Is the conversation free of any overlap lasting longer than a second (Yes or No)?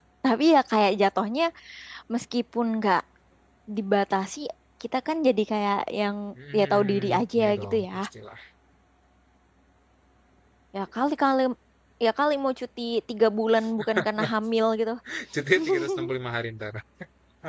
No